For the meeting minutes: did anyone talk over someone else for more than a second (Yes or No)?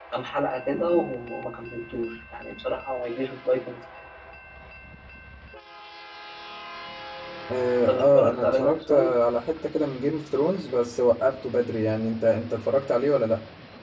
Yes